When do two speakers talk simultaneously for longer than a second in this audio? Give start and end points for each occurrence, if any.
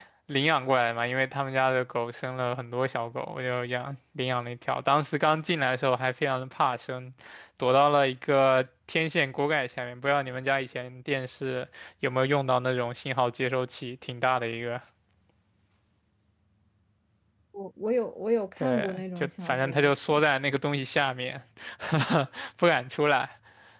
18.6-20.2

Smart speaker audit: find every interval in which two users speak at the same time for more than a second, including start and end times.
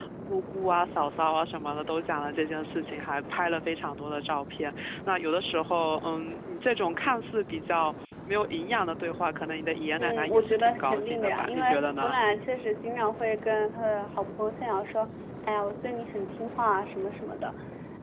10.0-11.6

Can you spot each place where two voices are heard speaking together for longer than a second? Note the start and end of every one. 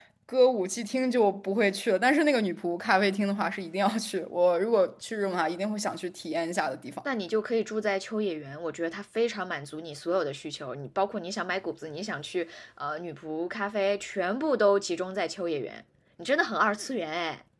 none

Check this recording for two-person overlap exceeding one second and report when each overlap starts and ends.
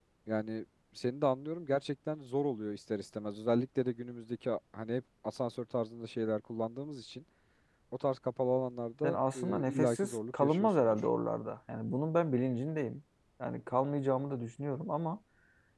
9.0-11.0

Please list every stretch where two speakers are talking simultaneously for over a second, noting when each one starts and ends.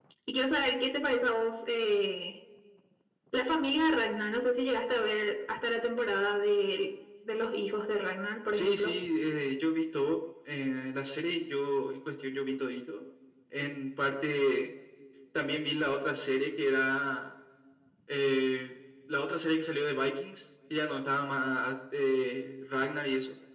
none

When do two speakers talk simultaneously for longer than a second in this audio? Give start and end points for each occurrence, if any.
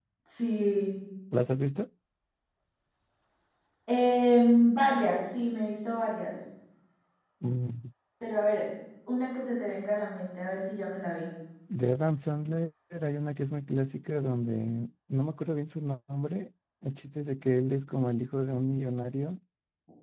none

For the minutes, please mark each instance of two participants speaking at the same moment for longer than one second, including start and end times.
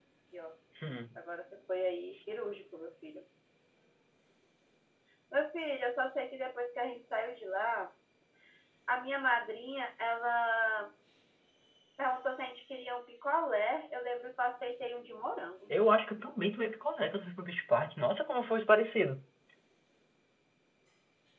none

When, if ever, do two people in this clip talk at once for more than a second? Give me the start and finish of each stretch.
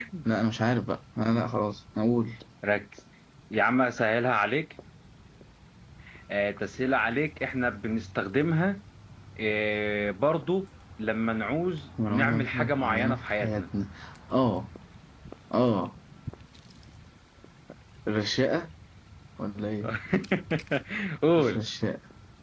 12.1-13.6

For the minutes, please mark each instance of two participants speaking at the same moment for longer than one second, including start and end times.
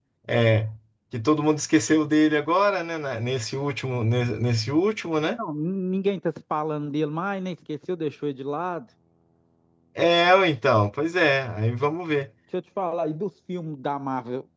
none

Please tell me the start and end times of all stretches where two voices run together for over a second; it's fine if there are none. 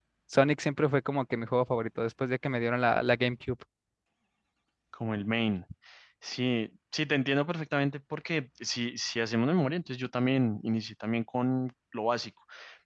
none

